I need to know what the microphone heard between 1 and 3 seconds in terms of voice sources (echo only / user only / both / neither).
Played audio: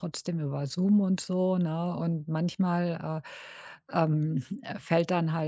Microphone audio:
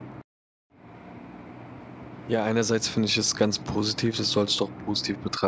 user only